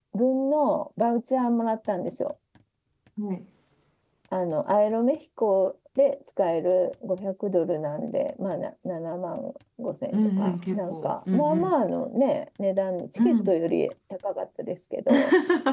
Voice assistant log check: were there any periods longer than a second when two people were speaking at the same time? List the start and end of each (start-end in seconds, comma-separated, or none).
10.1-11.7